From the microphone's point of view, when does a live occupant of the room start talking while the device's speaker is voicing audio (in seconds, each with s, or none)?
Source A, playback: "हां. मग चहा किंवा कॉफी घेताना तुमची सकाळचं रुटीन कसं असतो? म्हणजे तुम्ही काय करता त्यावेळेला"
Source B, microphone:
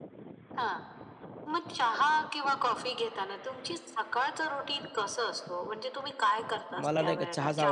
6.8 s